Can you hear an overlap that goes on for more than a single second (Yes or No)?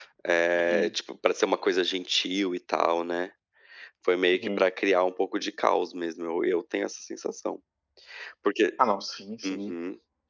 No